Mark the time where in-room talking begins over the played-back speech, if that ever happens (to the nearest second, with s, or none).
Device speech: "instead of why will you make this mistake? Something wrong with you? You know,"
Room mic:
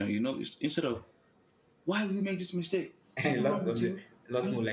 3 s